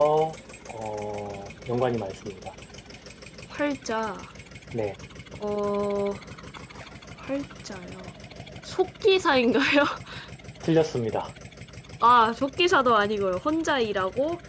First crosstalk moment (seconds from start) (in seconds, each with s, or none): none